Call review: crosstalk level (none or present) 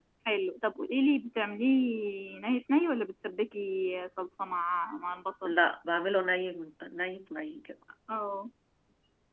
none